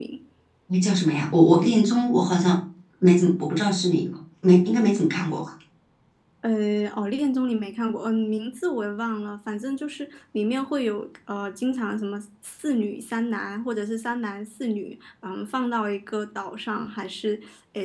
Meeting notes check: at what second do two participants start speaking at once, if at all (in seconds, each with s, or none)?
none